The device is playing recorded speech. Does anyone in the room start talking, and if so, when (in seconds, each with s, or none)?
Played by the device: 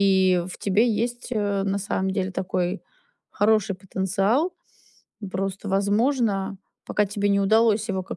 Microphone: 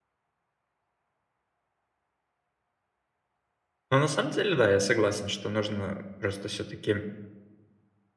3.9 s